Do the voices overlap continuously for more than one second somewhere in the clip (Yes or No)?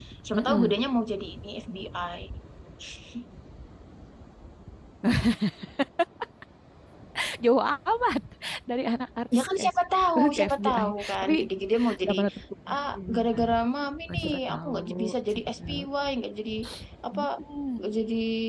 Yes